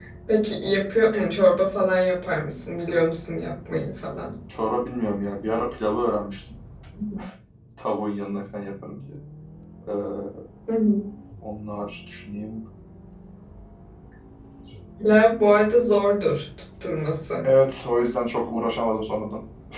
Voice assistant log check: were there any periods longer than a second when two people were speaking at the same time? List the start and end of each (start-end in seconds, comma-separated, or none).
none